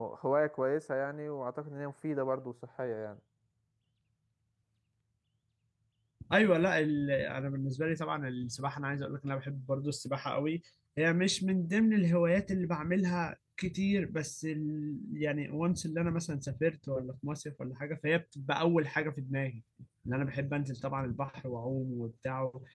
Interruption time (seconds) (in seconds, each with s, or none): none